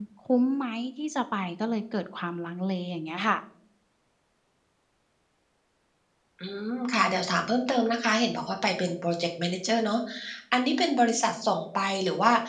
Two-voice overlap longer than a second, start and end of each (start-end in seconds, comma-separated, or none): none